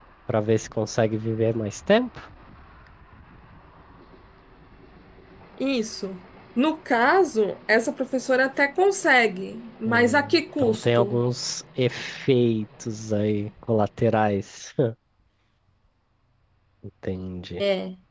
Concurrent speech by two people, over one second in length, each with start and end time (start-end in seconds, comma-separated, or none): 9.8-11.2